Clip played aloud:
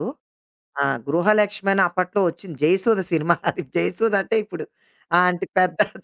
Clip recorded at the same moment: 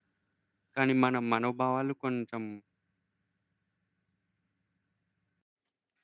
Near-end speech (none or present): present